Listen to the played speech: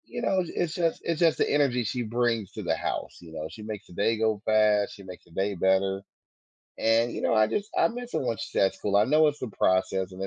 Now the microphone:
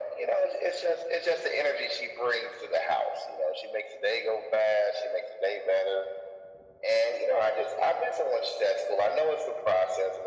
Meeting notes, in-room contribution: none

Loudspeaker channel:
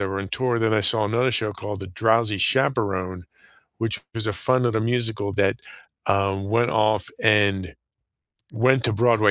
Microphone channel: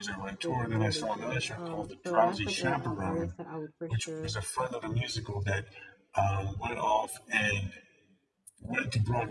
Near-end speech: present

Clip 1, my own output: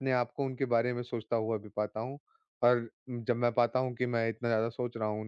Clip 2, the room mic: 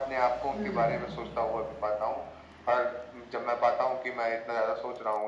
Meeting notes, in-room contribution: present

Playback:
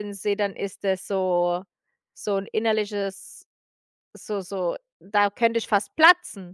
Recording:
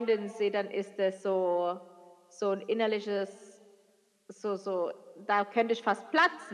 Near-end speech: none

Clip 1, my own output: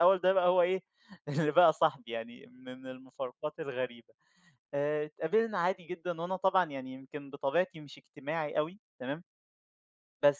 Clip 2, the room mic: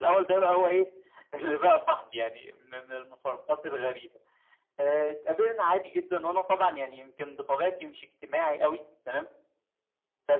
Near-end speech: none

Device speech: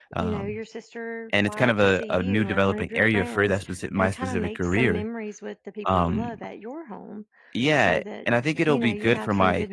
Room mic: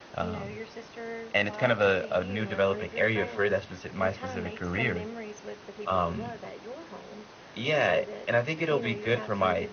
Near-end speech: none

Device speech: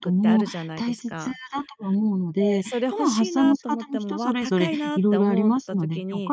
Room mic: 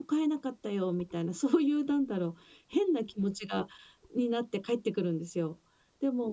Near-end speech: present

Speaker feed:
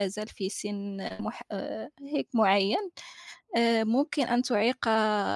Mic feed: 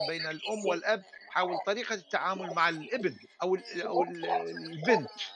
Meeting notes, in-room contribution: present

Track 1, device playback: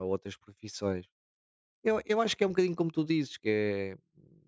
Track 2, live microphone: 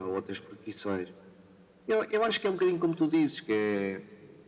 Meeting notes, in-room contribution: none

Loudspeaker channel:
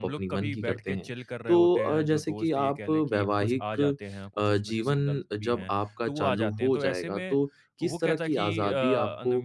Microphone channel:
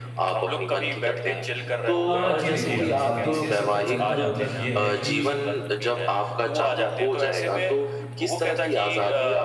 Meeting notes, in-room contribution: present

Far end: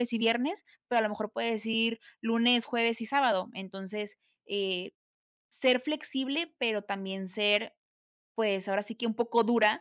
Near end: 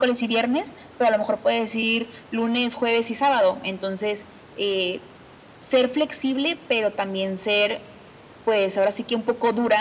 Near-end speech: none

